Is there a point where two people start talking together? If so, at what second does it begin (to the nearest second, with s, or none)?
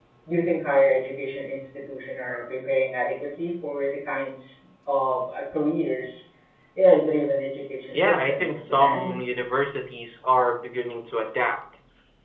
8 s